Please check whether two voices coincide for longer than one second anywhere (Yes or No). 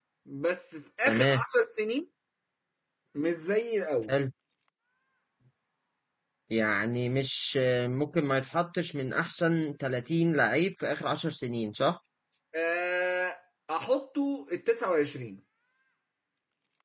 No